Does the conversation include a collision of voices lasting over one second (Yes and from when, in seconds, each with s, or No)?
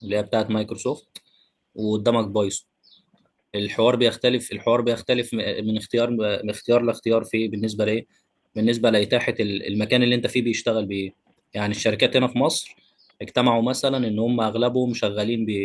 No